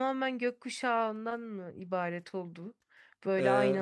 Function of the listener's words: listening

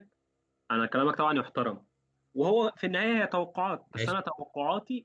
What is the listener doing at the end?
listening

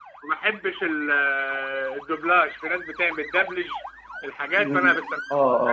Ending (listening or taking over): taking over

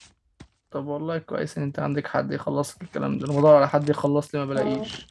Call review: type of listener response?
listening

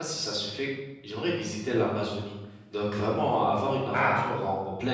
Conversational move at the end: listening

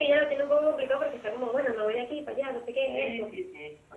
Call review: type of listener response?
taking over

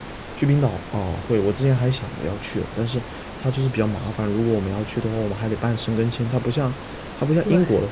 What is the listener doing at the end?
listening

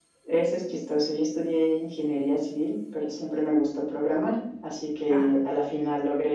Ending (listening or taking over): listening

